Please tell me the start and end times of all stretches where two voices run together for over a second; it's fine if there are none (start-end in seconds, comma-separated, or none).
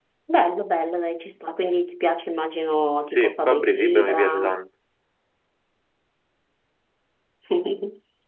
3.1-4.5